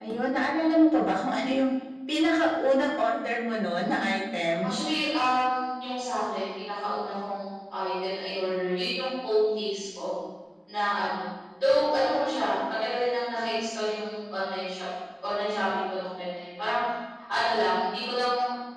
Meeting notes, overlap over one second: none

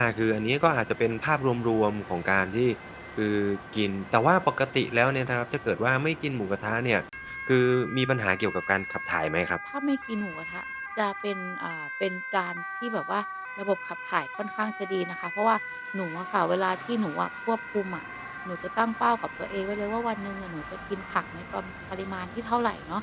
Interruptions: none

